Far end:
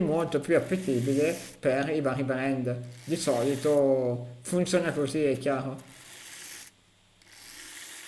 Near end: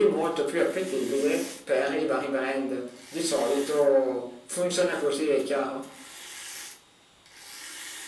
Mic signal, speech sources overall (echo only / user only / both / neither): echo only